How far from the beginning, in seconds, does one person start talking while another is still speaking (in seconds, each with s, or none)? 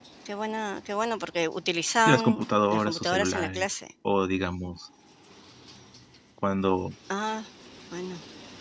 2.1 s